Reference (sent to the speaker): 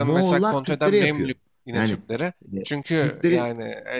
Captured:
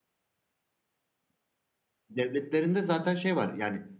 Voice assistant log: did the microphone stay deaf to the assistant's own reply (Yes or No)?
Yes